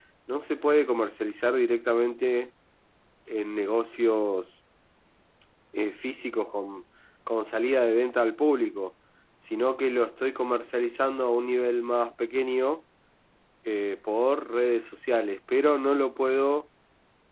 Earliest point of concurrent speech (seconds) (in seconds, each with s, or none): none